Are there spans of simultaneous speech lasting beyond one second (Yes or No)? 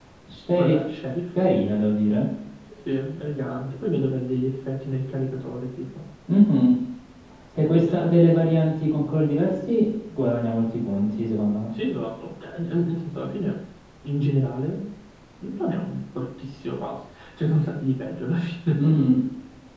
No